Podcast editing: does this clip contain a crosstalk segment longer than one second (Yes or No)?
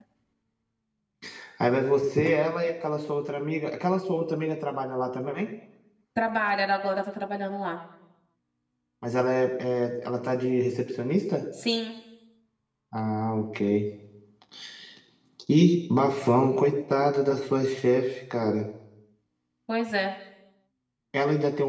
No